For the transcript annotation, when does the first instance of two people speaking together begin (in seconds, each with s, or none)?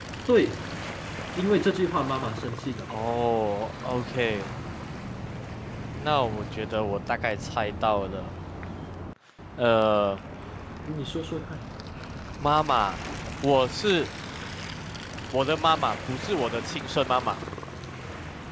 none